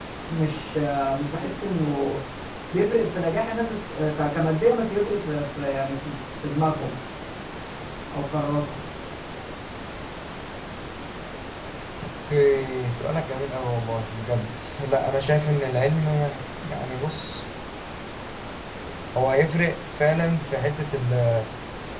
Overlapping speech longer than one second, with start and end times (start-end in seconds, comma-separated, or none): none